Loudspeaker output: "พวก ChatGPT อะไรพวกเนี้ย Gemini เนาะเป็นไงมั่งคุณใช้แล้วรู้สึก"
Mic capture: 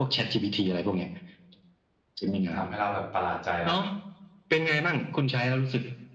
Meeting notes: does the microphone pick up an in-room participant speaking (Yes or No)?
Yes